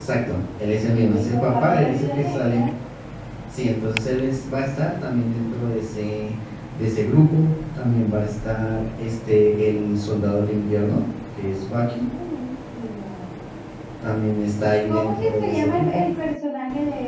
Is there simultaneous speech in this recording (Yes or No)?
Yes